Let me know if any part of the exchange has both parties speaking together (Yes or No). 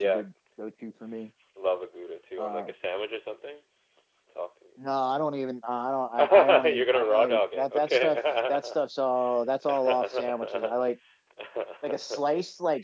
Yes